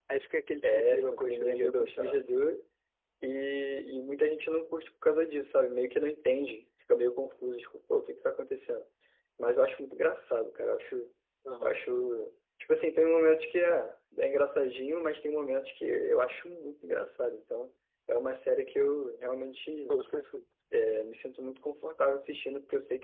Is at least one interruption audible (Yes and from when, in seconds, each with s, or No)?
Yes, from 0.6 s